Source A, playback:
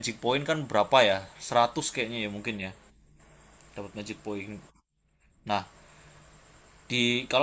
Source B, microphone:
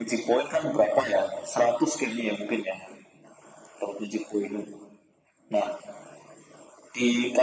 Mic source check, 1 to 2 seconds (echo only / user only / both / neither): echo only